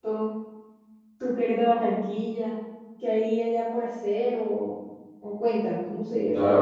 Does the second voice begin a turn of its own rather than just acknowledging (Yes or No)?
Yes